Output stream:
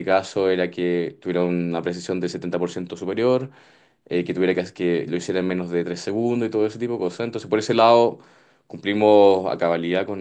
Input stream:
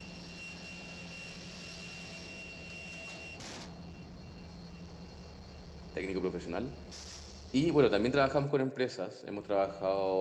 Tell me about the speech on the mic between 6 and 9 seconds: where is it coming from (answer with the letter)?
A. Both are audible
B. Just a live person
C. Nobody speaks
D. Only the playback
B